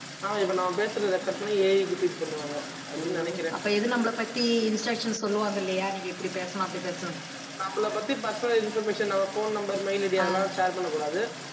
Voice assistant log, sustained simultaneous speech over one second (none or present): none